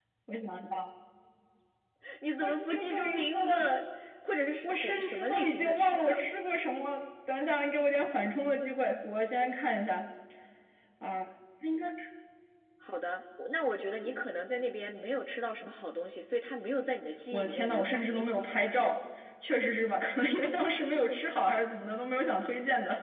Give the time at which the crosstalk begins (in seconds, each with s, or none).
2.4 s